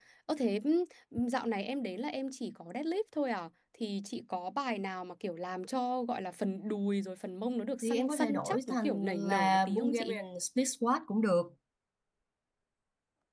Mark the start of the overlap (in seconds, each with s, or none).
7.8 s